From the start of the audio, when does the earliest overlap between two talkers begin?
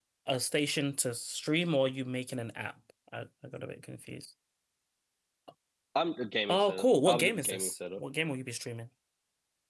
6.5 s

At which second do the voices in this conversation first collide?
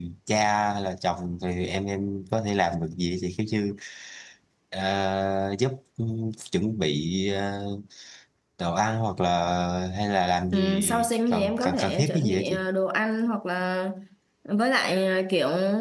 10.5 s

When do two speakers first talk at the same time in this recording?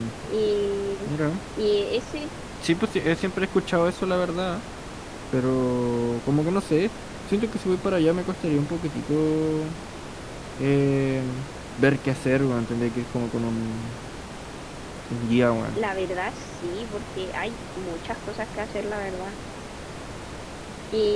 none

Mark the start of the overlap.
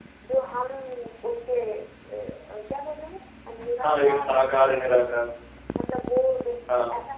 3.8 s

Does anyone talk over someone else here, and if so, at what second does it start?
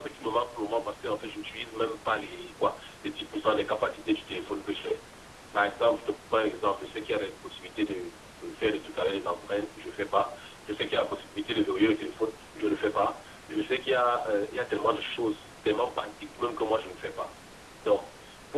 none

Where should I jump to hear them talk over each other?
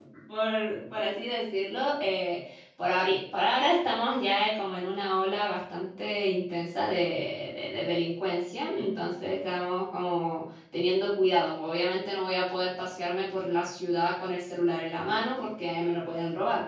none

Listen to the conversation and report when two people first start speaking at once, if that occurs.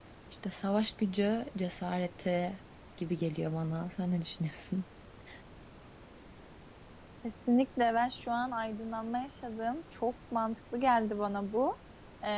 none

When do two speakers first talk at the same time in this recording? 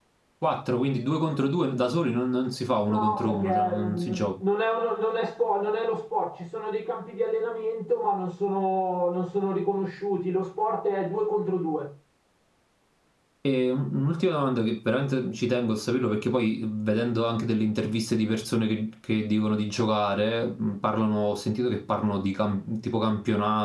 2.9 s

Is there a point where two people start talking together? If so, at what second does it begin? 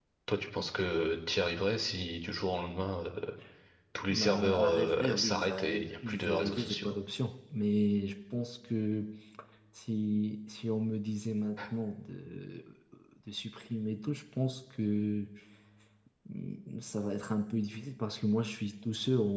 4.1 s

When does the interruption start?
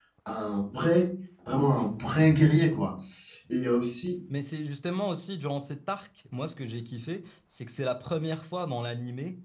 none

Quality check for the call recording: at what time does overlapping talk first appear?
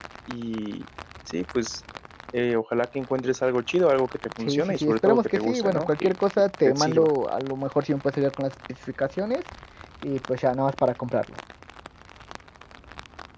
4.4 s

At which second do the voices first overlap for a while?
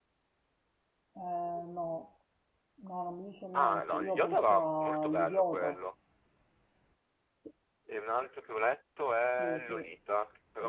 3.5 s

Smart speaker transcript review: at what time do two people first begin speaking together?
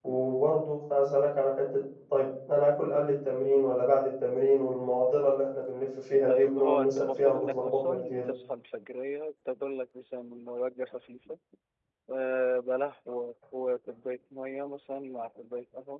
6.3 s

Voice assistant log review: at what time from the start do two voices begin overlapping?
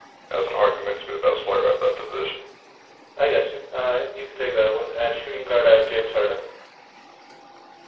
none

